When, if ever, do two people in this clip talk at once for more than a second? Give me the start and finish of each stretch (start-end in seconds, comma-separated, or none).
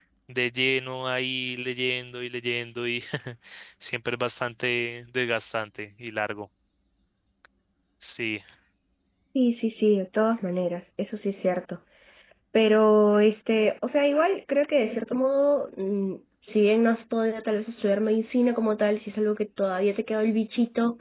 none